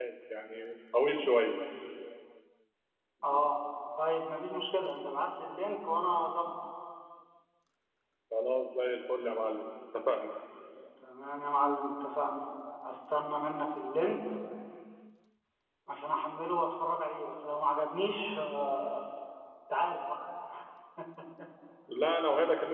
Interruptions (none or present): none